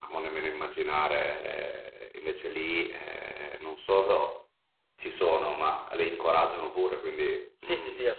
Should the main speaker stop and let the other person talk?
Yes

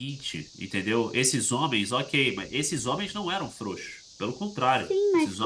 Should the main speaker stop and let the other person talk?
Yes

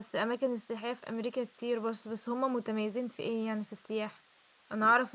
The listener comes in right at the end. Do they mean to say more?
No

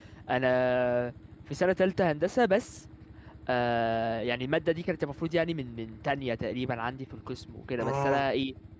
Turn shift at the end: No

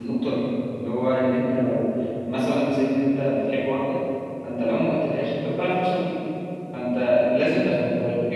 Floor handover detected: No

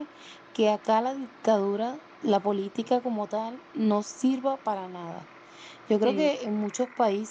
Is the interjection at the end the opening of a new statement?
No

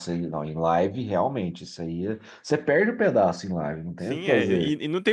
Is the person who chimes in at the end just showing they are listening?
No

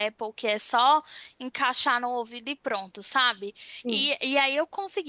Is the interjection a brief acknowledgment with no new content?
Yes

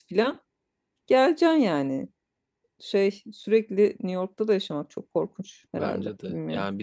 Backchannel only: No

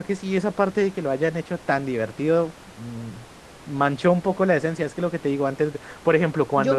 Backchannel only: No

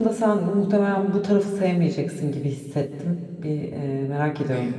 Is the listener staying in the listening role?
Yes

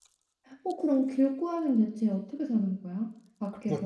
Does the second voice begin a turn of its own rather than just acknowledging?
Yes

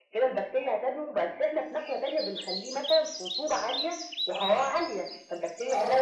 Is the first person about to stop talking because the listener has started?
Yes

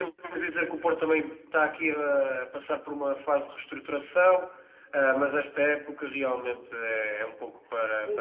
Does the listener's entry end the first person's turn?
Yes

